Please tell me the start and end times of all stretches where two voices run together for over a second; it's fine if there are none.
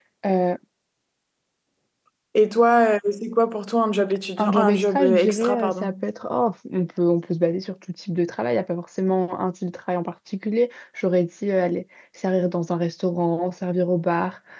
4.4-5.9

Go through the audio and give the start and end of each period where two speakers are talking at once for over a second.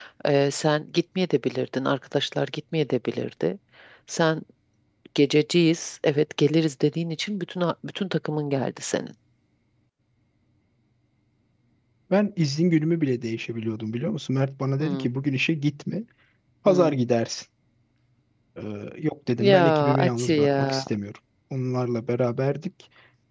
19.4-20.8

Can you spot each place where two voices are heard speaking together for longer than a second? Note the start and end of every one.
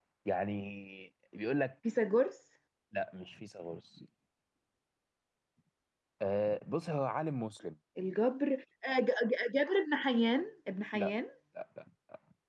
none

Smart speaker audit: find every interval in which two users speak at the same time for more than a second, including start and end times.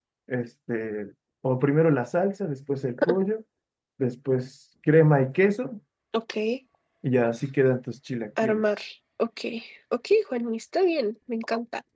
none

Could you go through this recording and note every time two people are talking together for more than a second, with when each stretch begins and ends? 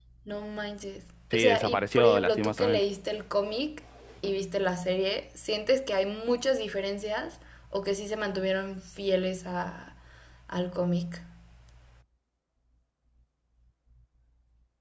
1.3-2.8

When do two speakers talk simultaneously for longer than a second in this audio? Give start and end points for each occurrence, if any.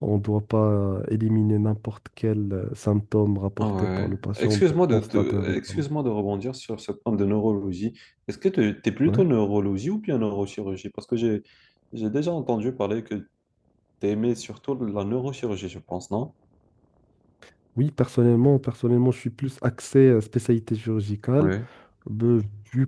3.6-5.8

